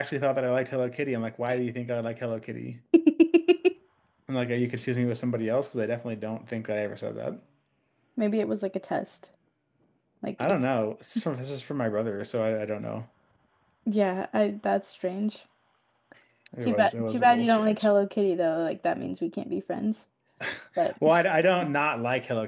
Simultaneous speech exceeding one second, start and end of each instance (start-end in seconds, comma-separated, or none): 16.6-17.9